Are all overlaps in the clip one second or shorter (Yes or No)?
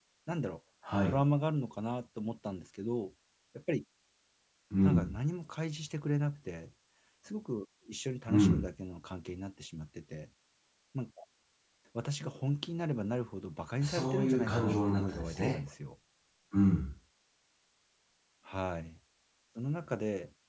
No